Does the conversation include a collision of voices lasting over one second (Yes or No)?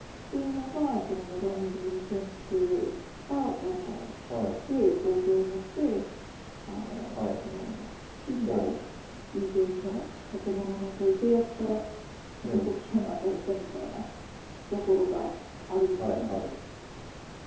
No